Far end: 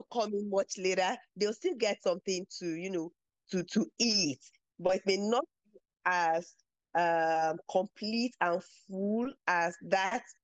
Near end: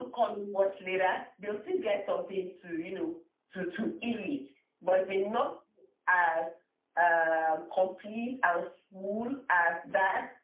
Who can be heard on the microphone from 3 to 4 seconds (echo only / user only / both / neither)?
echo only